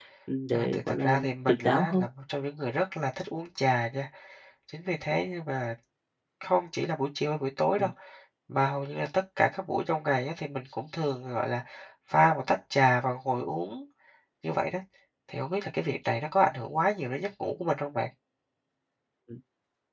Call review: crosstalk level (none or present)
present